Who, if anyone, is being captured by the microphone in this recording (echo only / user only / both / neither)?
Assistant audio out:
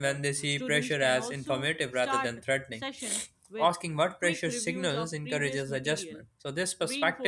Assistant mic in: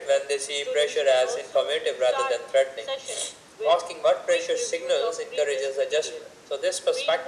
echo only